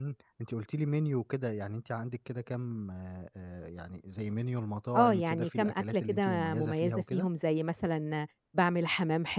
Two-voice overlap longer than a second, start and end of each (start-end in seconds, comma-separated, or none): 4.9-7.3